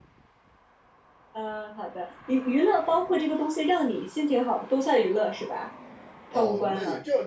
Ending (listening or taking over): taking over